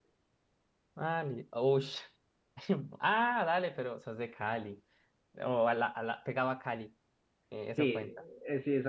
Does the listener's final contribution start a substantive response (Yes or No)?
Yes